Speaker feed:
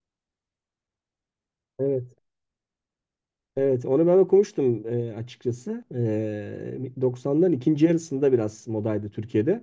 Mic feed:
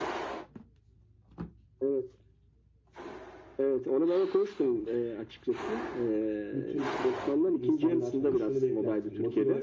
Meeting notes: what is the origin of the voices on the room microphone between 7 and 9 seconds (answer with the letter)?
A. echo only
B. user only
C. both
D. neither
C